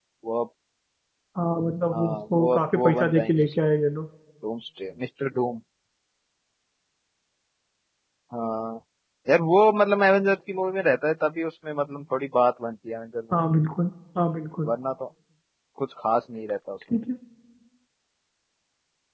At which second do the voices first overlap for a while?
1.9 s

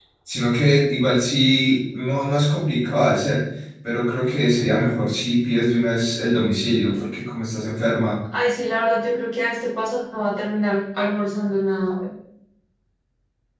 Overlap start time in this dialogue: none

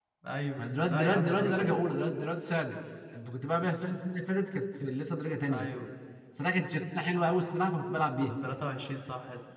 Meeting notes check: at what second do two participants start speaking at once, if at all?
0.6 s

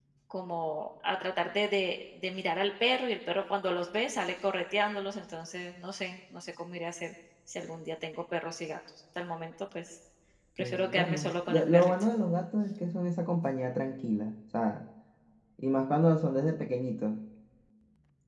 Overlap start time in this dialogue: 10.6 s

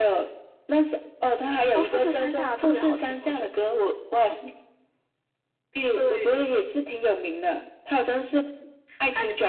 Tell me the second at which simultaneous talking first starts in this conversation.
1.7 s

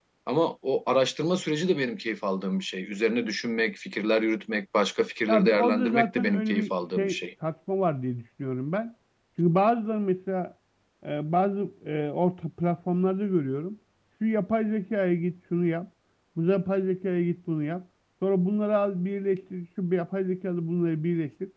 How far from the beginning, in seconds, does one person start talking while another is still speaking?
5.3 s

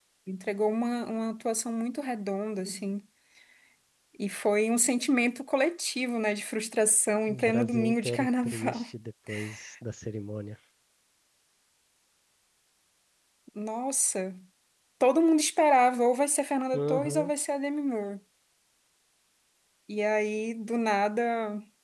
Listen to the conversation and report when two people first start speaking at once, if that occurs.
7.3 s

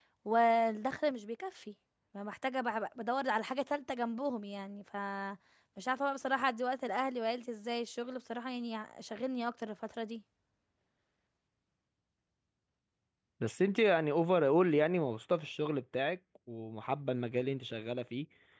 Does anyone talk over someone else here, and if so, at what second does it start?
none

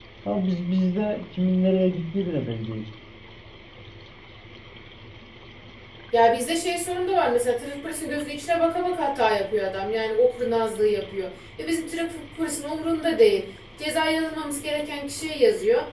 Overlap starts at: none

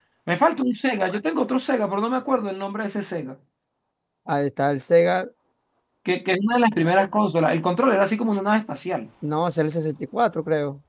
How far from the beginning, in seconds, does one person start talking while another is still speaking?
none

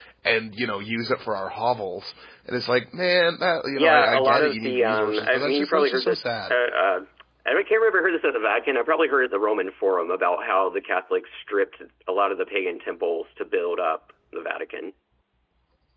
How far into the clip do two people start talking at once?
3.7 s

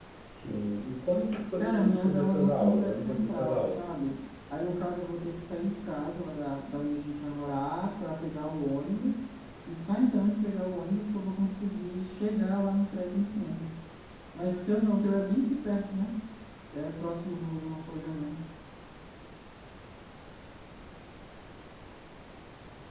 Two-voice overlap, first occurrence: 1.6 s

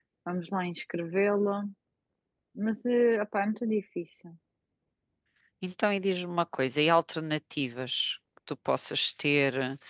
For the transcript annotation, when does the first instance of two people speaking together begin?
none

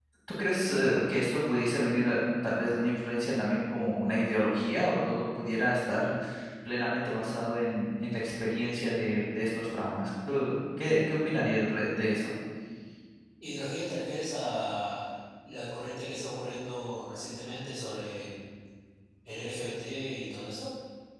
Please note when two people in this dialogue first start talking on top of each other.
none

